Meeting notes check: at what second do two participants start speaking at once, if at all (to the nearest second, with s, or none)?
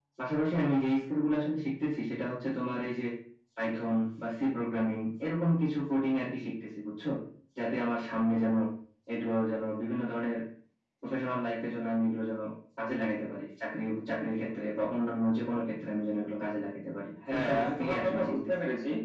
17 s